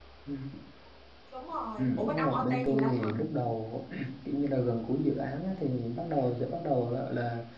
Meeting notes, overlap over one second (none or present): present